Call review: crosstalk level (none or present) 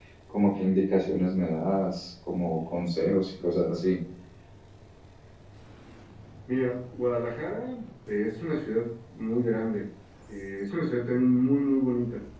none